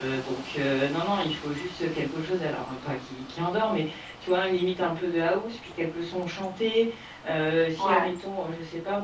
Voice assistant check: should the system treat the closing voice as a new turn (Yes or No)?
No